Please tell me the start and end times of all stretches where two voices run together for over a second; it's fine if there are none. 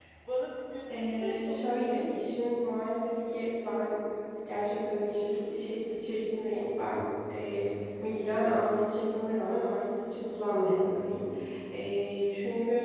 0.9-2.2

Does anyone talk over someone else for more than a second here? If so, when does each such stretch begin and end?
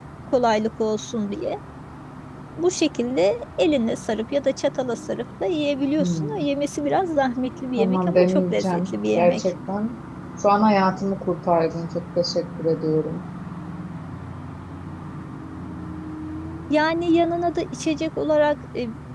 7.8-9.4

